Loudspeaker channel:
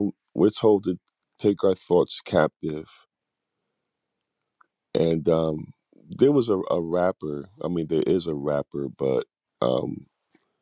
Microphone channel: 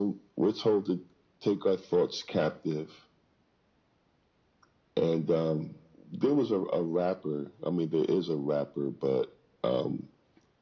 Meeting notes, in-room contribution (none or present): none